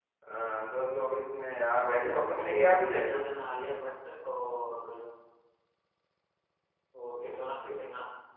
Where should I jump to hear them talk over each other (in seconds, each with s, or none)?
1.8 s